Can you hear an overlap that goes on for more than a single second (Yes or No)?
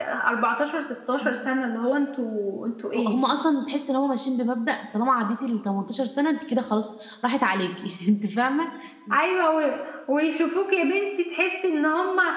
No